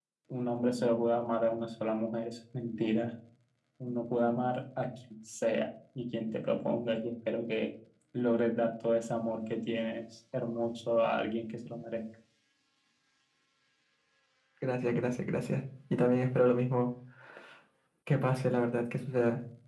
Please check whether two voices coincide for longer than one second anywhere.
No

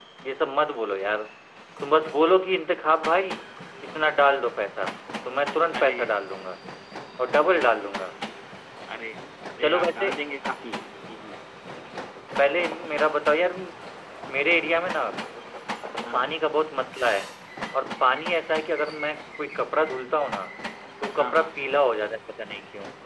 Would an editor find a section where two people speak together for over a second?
No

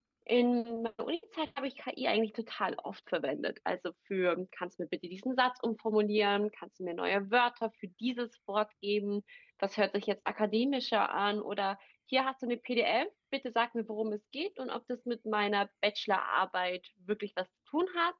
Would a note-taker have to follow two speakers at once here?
No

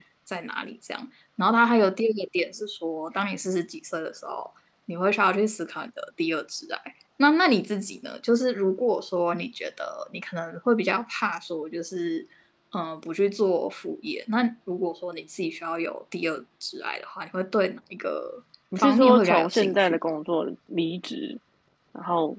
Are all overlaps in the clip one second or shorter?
No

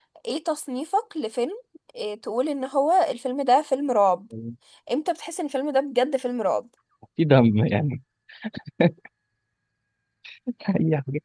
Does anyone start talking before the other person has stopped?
No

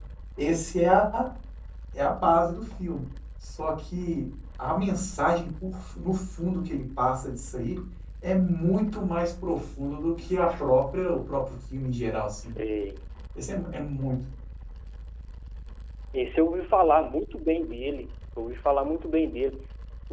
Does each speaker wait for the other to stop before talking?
Yes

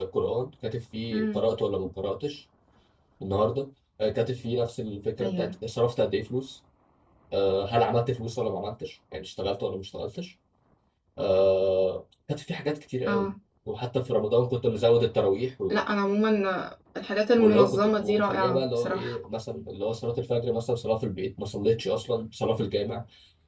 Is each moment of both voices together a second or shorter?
No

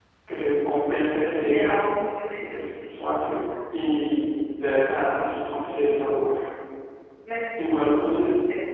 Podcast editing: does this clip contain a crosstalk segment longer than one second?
No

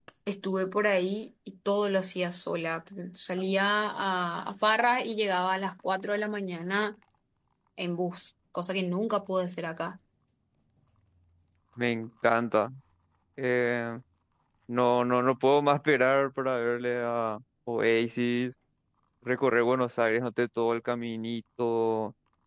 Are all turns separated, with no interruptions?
Yes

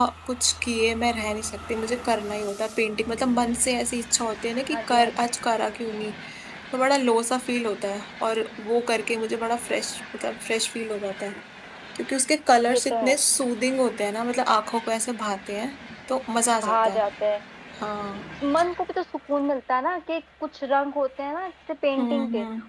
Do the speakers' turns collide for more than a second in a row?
No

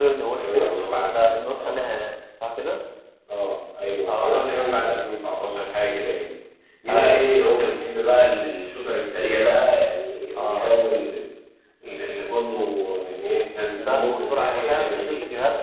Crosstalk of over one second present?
Yes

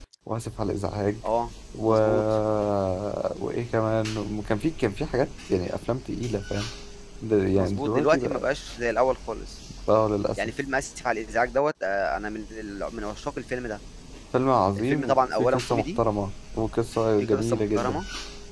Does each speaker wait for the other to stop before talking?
No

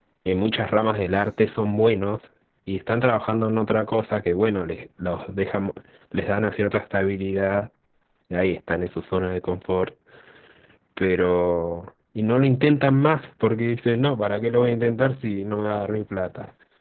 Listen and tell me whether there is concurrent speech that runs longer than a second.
No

